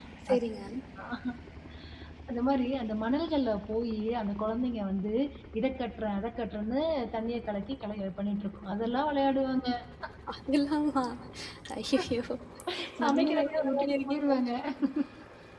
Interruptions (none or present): present